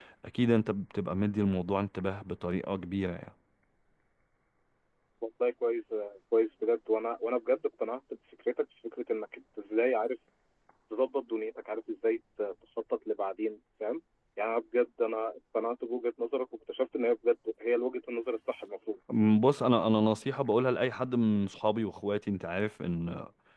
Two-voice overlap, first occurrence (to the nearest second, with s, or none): none